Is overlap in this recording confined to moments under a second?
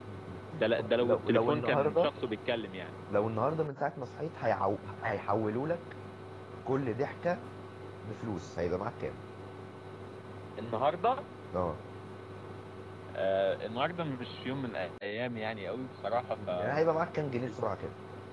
No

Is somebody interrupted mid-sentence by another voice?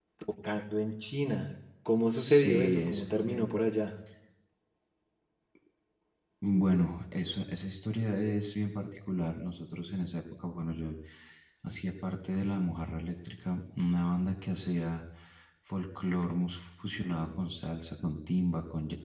Yes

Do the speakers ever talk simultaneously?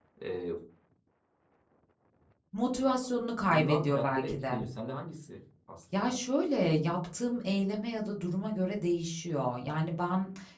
Yes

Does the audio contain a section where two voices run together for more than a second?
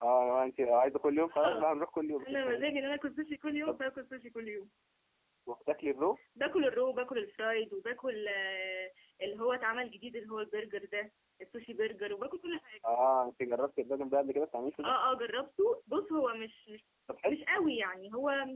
No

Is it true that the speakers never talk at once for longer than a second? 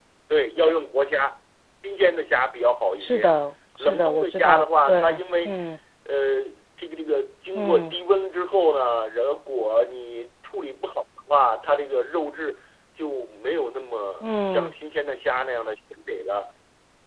No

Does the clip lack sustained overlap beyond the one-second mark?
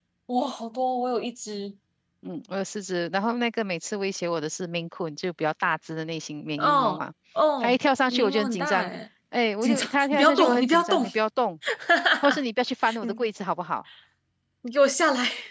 No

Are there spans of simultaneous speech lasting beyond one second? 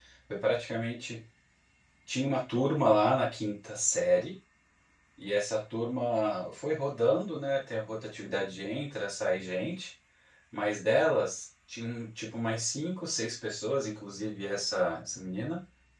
No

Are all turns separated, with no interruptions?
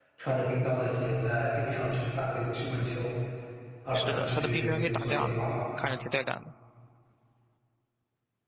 No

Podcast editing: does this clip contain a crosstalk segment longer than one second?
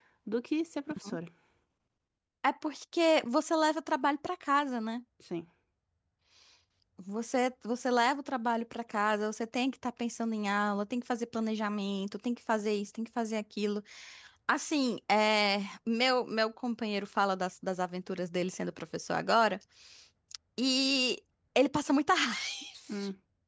No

